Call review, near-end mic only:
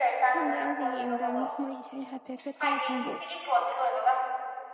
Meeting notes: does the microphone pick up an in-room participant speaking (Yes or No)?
Yes